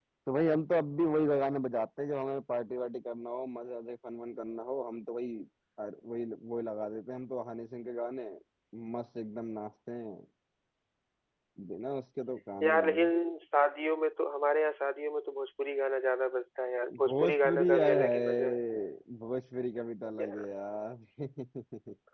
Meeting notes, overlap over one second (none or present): present